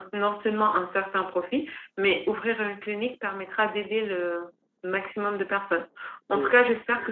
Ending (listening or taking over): listening